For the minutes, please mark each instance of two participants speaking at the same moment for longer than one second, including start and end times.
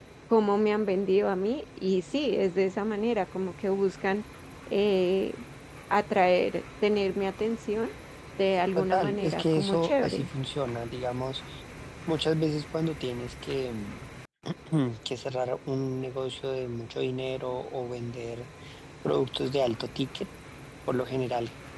8.8-10.3

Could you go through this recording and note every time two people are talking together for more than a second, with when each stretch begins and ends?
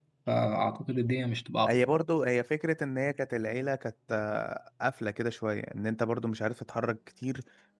none

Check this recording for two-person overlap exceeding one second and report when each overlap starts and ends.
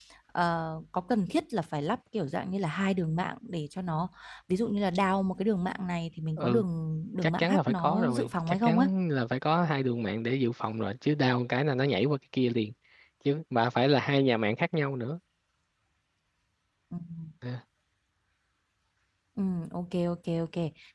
7.2-8.9

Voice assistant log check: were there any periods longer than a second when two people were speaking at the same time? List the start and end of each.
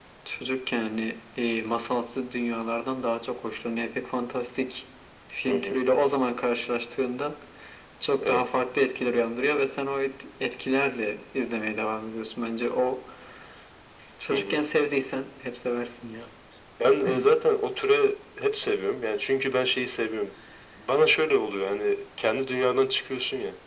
none

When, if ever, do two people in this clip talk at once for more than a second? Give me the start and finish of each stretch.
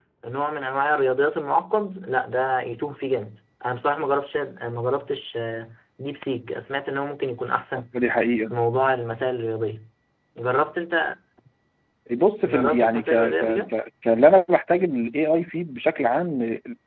12.4-13.7

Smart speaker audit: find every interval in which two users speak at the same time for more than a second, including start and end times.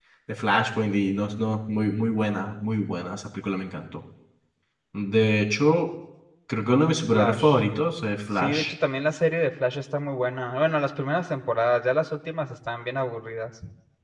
none

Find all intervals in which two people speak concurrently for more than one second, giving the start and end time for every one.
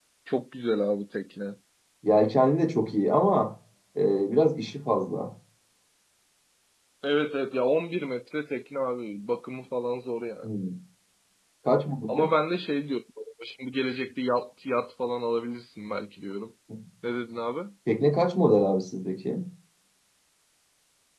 none

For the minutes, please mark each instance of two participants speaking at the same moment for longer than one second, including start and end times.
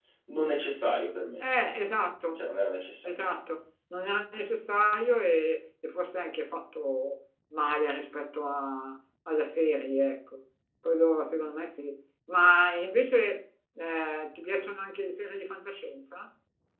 none

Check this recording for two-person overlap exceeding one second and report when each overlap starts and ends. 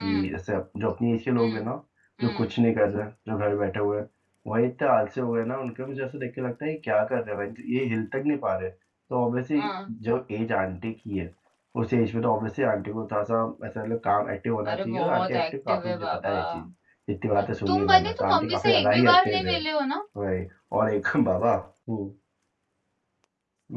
14.7-16.4, 17.7-19.5

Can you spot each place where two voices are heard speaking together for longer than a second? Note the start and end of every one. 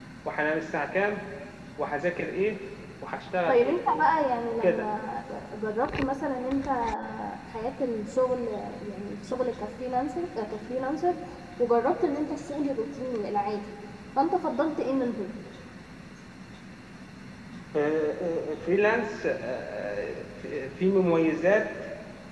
none

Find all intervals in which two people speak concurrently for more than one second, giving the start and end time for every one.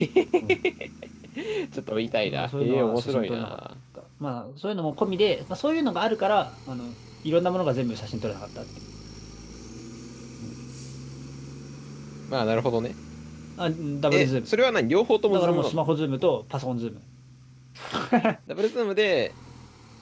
2.2-3.6

